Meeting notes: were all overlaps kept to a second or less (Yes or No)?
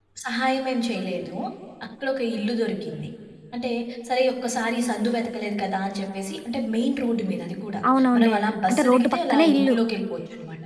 No